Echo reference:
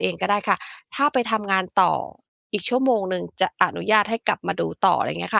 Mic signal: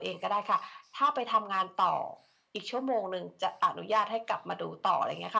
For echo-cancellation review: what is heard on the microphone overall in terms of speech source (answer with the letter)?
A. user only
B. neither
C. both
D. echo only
D